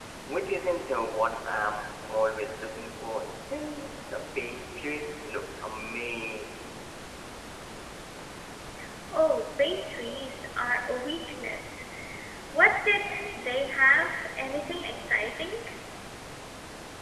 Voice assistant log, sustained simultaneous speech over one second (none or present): none